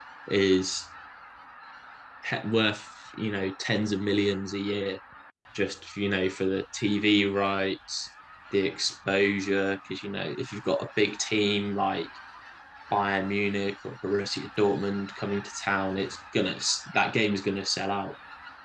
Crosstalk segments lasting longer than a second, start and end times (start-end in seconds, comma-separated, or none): none